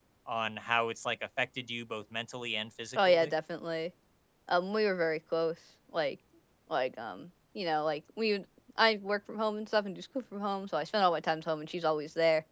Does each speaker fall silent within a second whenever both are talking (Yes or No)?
Yes